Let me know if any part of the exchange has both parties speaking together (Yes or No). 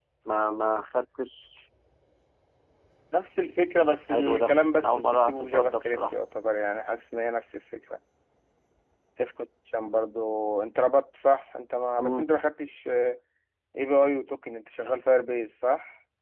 Yes